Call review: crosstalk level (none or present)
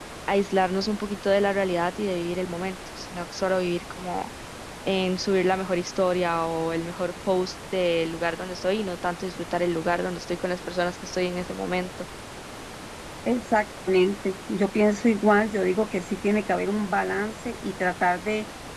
none